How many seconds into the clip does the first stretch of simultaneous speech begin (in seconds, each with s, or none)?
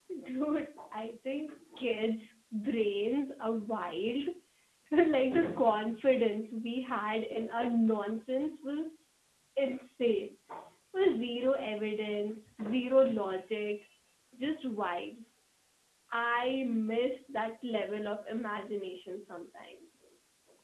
none